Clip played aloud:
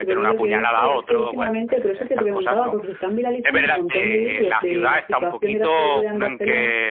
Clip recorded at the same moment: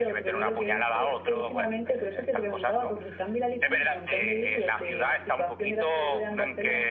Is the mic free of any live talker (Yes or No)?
Yes